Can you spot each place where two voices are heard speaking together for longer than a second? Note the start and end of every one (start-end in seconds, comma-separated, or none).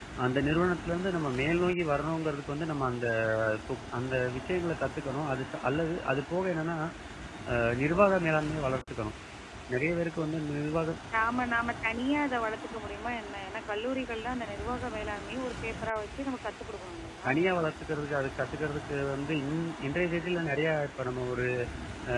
none